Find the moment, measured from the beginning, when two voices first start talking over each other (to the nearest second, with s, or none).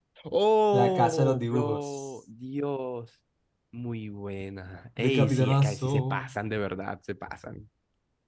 1 s